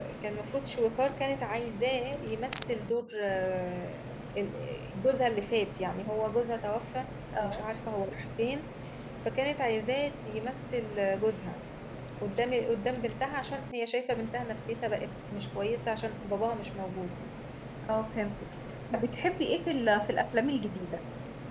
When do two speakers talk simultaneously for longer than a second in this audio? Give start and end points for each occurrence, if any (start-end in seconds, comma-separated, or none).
none